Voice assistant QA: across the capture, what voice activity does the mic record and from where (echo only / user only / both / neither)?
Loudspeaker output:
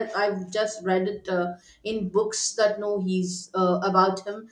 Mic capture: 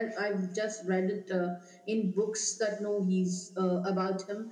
echo only